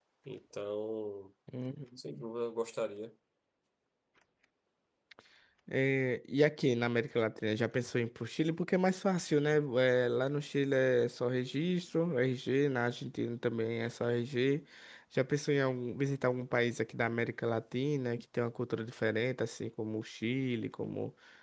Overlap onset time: none

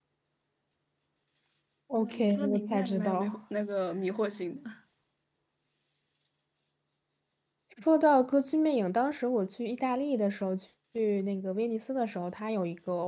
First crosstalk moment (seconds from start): 2.0 s

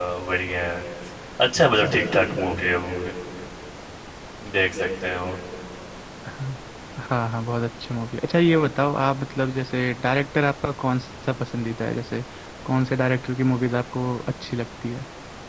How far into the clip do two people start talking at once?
none

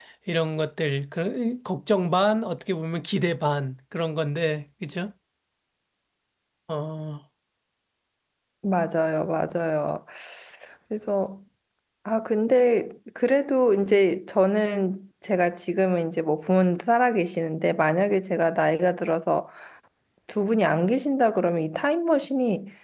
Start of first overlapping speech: none

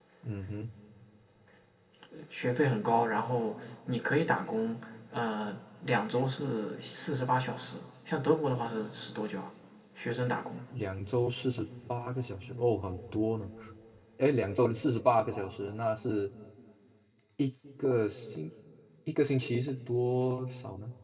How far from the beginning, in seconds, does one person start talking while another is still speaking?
none

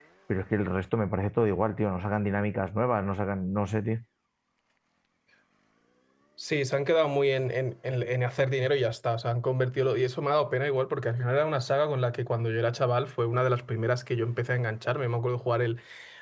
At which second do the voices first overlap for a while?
none

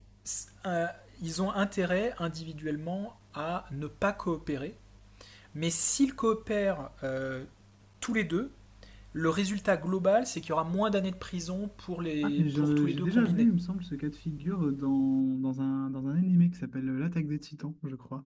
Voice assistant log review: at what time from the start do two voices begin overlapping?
12.2 s

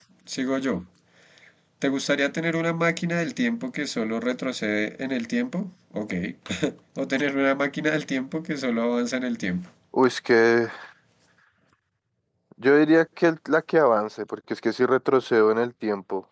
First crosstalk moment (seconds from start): none

